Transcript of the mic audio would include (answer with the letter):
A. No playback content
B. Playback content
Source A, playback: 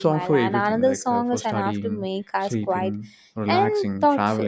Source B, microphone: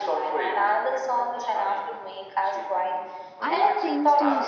B